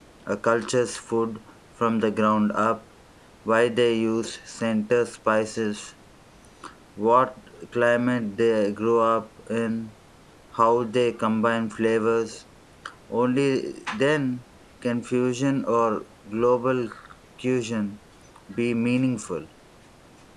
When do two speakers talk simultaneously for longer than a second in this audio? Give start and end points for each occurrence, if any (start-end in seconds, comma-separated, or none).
none